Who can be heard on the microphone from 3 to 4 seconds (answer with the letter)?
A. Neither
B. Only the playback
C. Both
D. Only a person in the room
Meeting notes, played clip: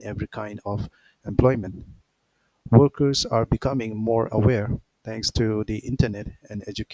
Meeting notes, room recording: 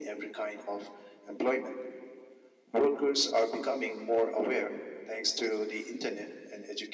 B